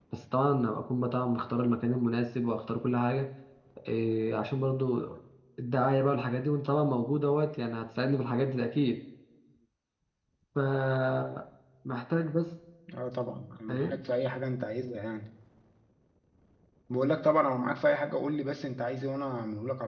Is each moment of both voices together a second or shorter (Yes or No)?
Yes